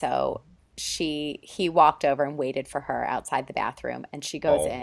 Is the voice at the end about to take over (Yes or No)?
No